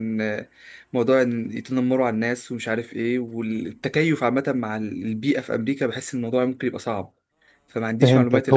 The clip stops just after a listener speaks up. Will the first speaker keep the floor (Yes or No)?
No